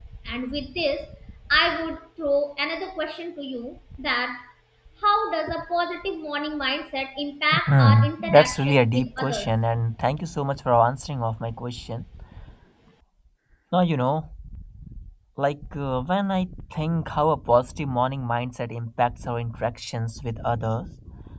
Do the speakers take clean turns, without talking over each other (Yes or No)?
No